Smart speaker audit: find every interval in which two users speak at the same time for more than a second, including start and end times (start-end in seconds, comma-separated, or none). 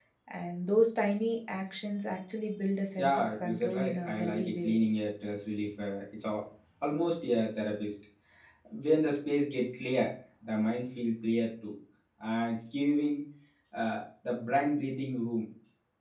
3.0-4.7